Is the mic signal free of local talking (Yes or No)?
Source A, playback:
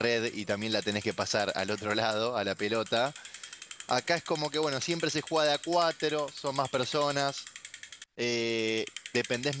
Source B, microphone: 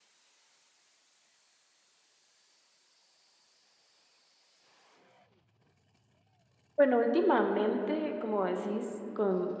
No